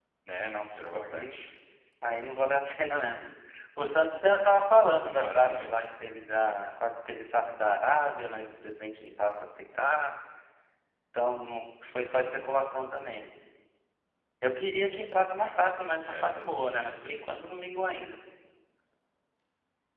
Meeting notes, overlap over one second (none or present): present